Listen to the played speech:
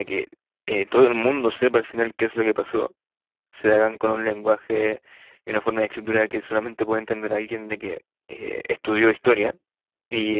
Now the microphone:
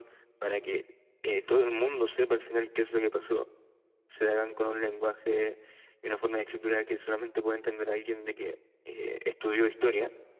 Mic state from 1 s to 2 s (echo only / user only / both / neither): echo only